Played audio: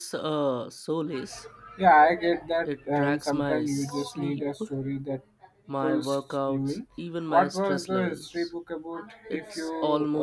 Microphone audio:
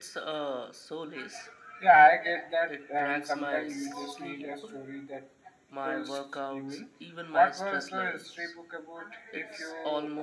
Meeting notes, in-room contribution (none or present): none